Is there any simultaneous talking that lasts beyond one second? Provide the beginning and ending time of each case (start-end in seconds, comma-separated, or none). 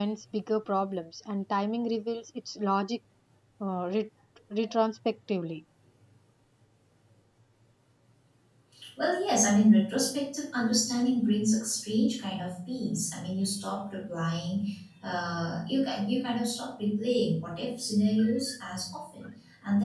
none